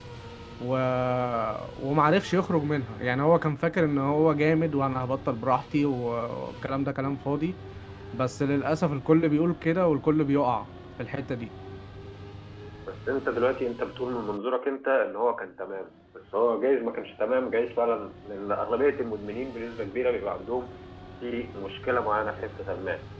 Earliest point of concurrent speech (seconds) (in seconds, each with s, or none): none